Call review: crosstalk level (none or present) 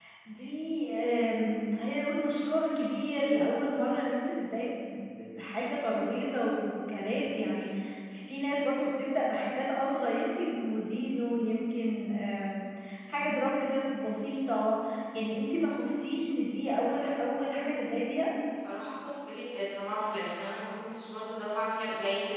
none